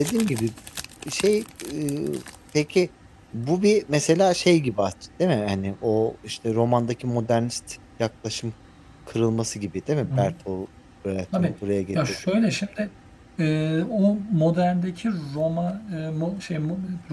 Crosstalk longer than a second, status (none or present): none